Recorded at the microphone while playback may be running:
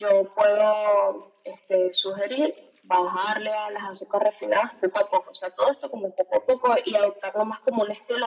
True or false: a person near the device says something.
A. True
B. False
B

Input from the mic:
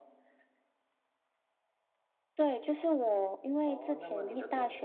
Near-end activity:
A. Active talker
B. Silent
A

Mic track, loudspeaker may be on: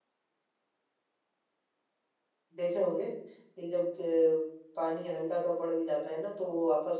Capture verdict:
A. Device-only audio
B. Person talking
B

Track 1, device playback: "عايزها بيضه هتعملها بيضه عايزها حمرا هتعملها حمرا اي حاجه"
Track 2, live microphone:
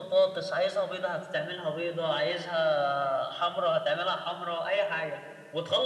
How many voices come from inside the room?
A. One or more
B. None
B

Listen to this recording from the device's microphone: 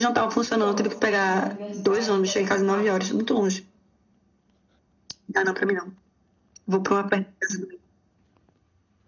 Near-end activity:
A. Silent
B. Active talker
B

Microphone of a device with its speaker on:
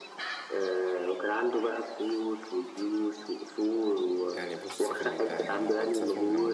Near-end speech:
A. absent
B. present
B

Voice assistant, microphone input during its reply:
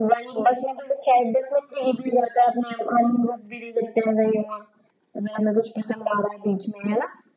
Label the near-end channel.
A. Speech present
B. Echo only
B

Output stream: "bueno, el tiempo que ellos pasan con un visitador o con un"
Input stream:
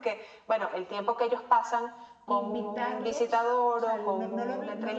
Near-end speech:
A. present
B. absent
A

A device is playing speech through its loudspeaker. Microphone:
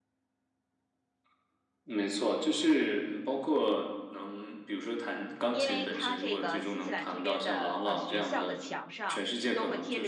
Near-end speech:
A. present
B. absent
A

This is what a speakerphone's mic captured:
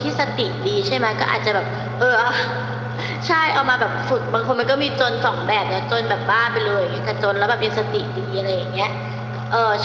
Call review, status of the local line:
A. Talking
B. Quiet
B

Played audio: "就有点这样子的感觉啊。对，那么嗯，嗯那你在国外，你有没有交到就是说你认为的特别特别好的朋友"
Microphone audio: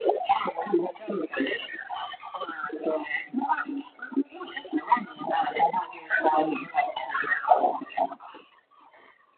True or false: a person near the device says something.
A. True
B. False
B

